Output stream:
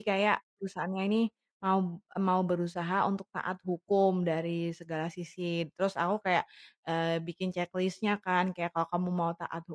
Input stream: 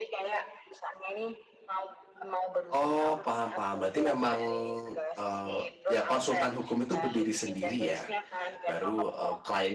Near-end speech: present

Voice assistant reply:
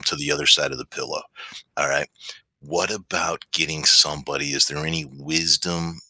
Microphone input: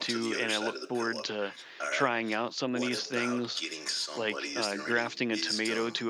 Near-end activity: present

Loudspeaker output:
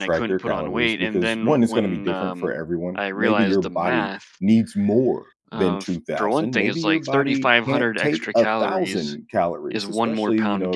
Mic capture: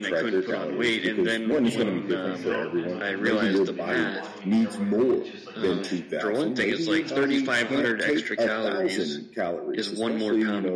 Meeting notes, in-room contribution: present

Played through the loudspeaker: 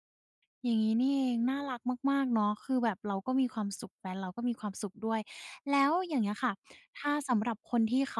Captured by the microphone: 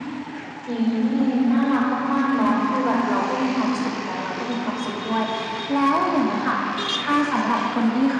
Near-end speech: none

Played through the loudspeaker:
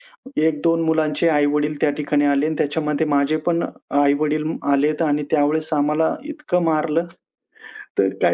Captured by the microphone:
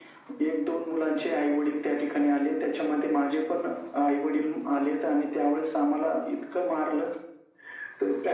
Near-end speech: none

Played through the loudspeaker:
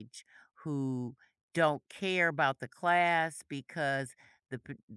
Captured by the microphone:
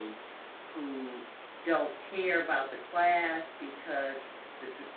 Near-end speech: none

